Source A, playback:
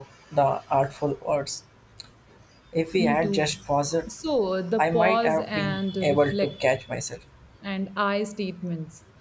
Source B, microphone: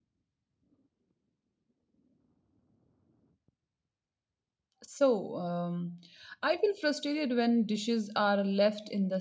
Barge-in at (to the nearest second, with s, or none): 5 s